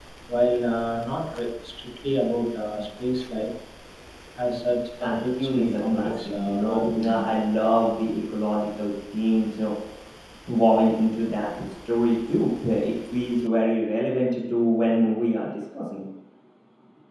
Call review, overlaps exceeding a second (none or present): present